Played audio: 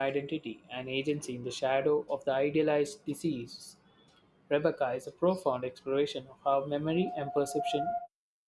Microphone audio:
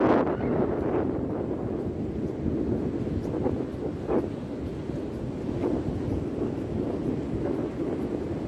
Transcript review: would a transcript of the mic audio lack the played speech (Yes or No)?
Yes